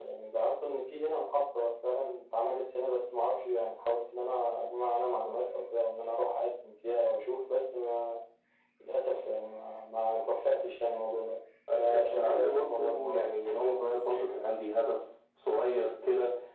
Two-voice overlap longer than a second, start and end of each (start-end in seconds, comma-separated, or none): 11.8-13.4